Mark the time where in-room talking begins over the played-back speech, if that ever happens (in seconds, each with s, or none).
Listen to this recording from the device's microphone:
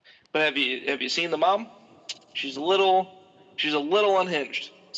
none